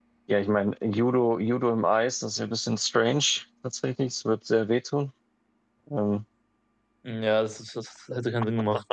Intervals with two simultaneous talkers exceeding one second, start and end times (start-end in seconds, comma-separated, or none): none